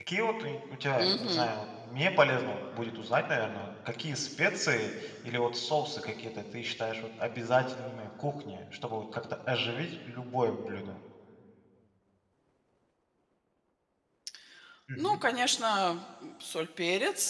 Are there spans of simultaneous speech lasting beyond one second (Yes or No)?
No